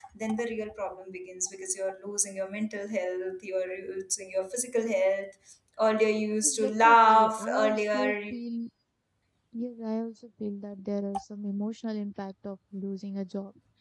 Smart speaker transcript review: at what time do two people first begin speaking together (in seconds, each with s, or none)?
6.4 s